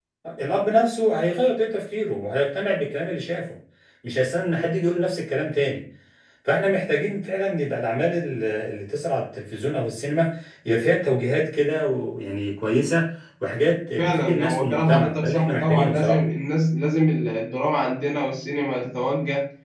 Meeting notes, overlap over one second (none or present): present